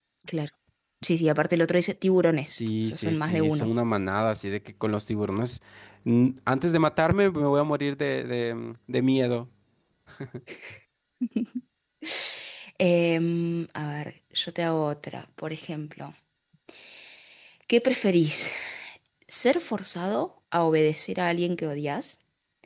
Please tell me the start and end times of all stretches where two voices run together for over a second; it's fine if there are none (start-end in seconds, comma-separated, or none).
2.5-3.7